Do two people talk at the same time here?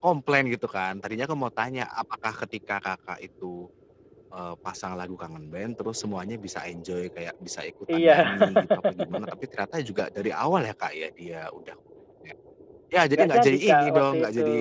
Yes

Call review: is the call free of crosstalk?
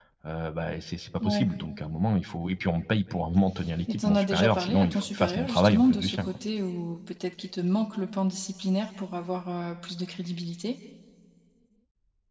No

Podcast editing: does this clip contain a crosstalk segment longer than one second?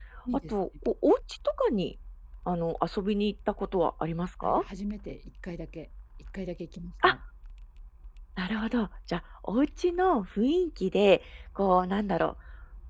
No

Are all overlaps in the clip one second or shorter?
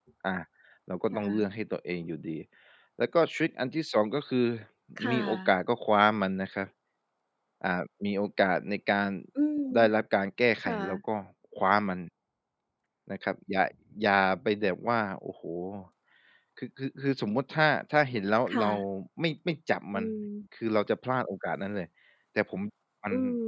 Yes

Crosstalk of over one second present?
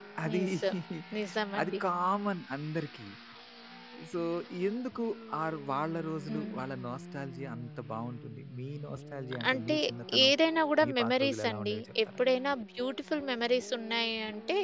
Yes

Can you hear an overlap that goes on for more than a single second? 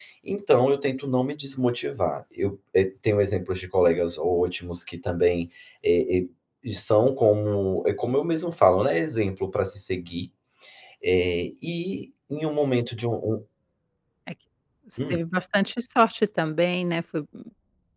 No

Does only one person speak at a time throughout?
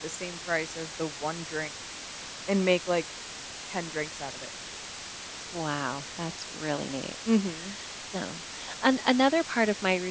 Yes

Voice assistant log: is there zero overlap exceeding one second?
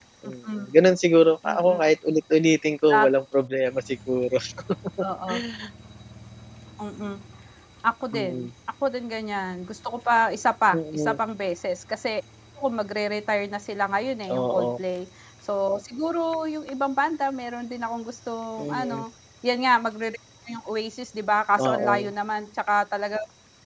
Yes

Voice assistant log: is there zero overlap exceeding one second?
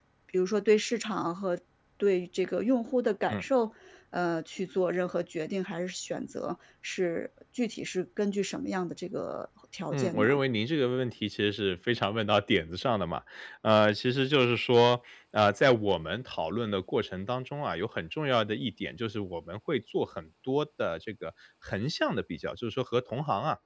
Yes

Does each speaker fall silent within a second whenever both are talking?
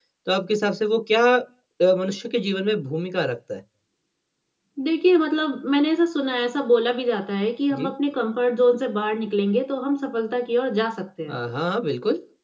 Yes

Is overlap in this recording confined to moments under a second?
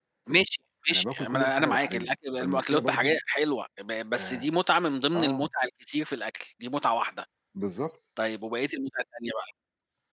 No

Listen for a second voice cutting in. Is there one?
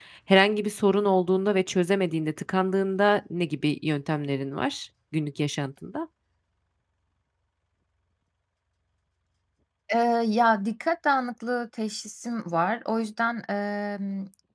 No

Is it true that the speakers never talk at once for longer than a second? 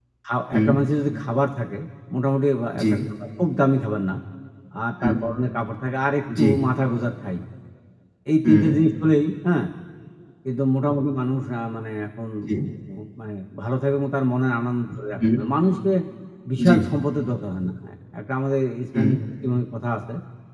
Yes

